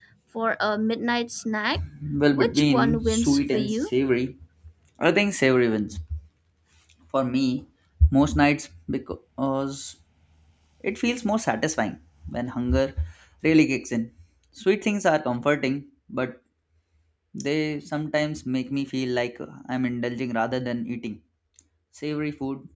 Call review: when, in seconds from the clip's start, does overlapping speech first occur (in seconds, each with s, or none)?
2.3 s